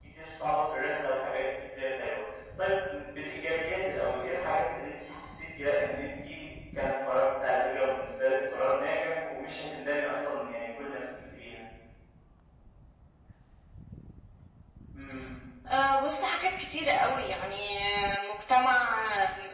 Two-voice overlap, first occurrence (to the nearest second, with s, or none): none